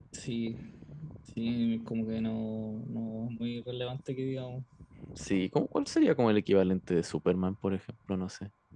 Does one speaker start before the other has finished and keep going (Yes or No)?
No